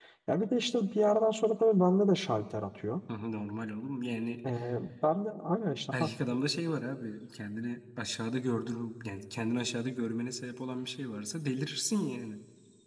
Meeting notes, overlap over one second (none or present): none